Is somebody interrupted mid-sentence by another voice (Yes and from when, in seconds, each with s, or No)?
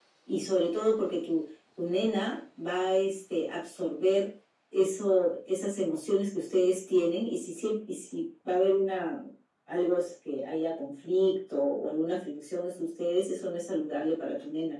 No